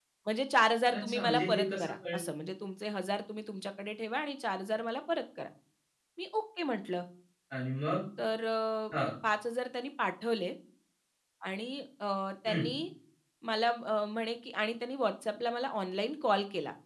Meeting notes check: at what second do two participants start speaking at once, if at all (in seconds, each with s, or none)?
0.9 s